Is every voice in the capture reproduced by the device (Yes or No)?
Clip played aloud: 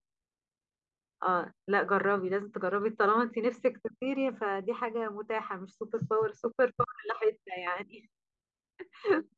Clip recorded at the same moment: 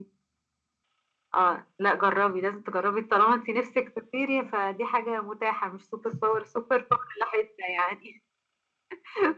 Yes